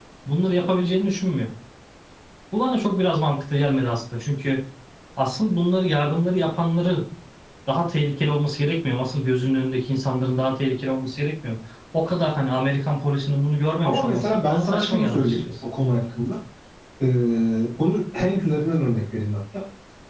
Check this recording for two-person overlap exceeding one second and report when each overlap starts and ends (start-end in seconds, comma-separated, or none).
13.8-15.4